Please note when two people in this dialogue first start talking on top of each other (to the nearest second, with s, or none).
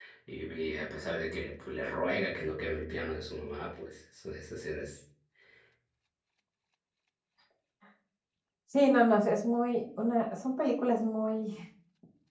none